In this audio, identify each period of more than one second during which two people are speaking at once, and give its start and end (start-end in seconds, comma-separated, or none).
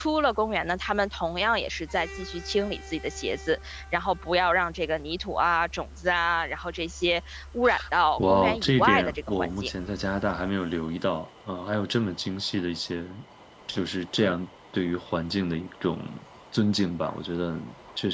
8.2-9.7